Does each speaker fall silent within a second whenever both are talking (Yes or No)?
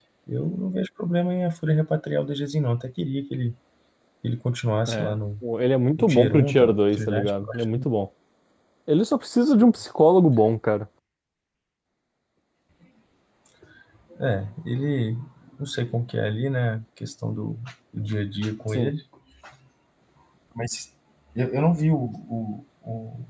No